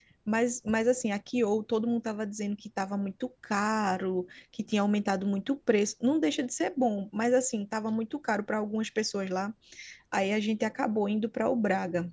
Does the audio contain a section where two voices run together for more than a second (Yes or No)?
No